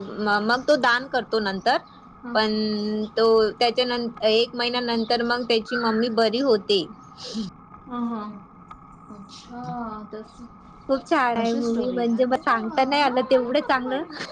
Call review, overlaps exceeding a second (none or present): present